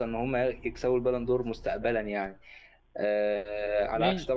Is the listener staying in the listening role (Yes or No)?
Yes